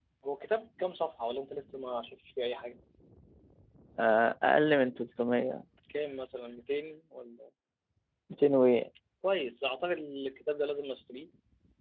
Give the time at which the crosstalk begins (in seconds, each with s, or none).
none